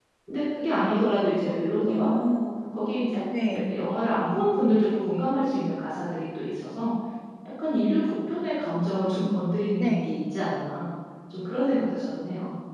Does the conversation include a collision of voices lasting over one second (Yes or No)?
No